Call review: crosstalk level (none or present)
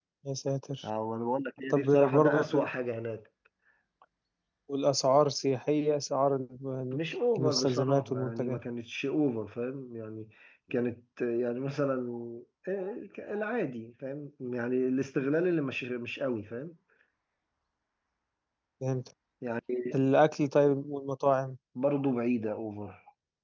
present